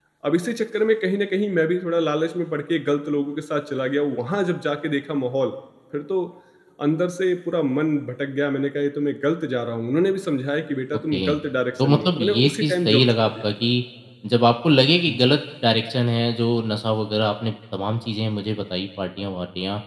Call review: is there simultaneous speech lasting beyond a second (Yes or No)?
Yes